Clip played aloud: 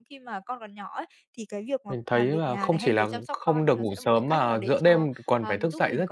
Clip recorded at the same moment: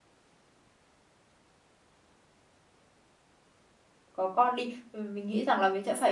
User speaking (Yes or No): Yes